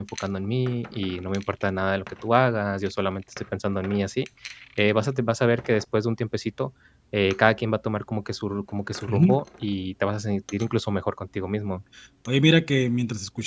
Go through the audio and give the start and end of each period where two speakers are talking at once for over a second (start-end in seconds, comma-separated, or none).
none